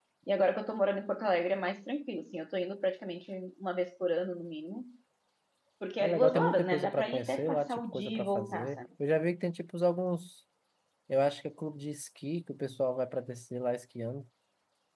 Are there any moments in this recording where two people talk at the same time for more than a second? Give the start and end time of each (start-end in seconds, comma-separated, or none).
6.0-8.8